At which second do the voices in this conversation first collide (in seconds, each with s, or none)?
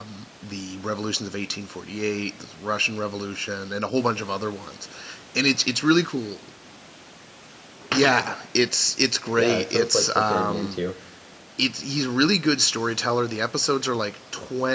9.3 s